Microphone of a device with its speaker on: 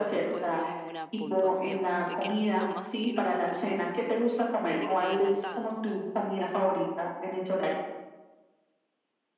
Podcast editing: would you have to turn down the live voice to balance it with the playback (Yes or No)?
No